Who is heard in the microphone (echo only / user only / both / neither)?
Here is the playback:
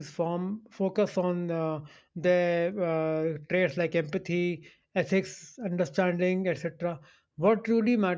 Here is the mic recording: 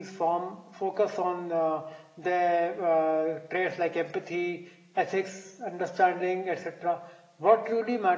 echo only